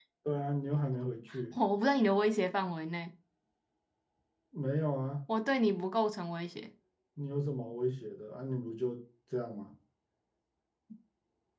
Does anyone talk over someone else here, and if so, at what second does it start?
none

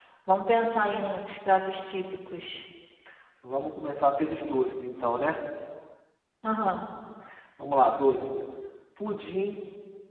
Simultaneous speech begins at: none

